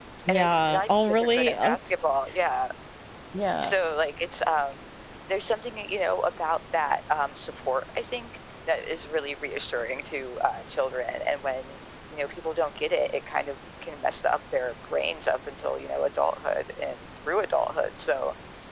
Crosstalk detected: Yes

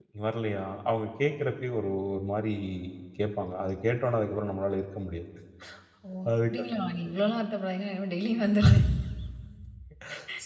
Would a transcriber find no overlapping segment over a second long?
Yes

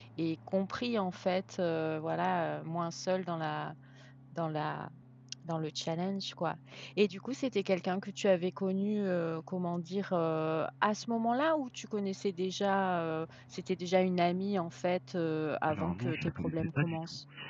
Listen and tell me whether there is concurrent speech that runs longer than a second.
Yes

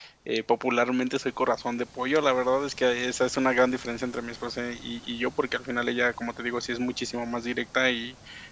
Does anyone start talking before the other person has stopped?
No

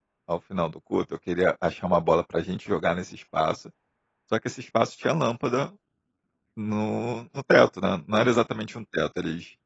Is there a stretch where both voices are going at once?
No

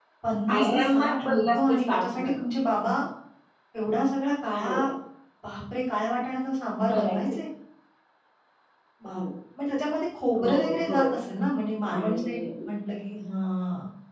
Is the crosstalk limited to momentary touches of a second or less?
No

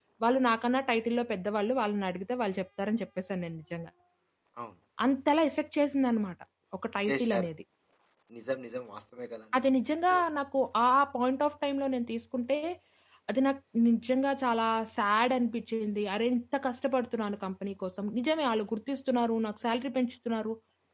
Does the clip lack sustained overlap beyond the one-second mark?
Yes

